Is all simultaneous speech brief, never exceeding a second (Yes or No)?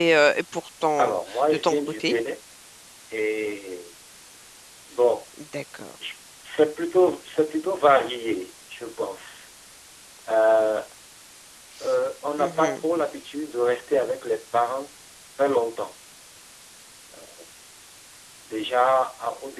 No